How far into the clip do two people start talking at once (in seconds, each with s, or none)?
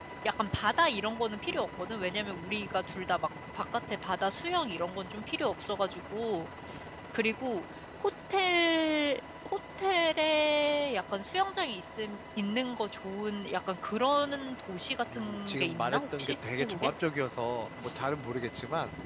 15.1 s